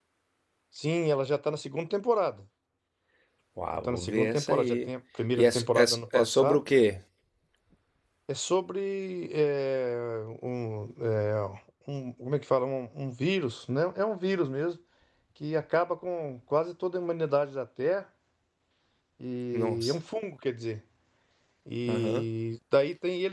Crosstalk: present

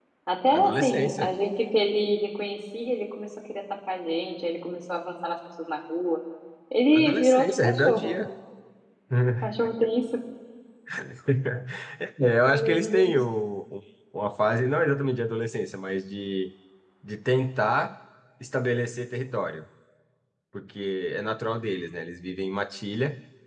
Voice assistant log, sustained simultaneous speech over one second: present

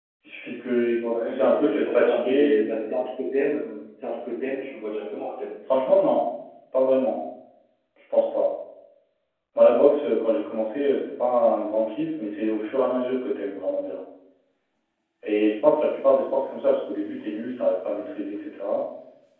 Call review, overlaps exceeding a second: present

